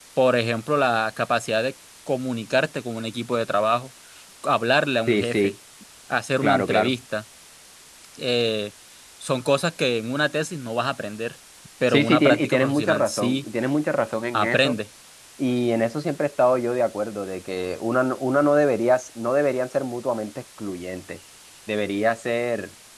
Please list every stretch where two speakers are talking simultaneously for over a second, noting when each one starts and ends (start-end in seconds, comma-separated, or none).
11.9-13.4